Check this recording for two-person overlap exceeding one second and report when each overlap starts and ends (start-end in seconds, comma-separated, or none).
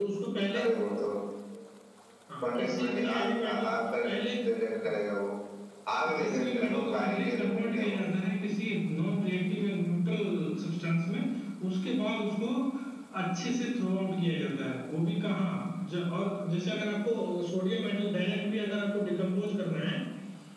2.4-4.0, 6.2-8.0